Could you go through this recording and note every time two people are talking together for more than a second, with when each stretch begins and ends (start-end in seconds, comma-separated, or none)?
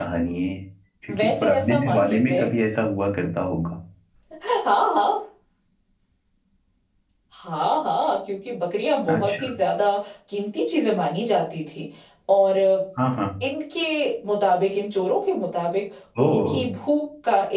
1.2-2.5